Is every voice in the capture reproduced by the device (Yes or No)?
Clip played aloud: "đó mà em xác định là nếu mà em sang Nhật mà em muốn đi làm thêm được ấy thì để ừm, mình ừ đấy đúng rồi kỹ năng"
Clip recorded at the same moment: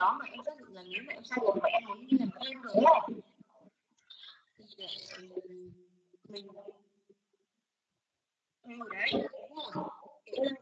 Yes